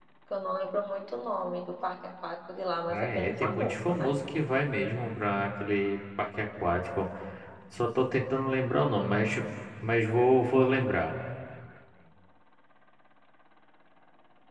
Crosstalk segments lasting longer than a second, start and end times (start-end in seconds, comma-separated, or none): 2.9-4.1